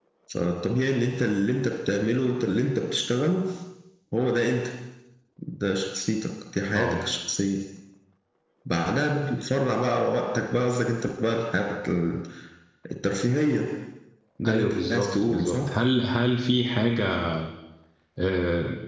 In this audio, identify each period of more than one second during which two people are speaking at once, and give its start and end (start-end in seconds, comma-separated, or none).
14.5-15.7